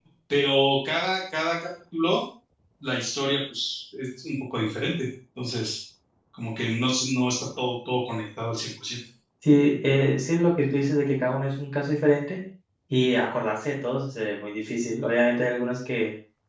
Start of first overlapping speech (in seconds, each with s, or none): none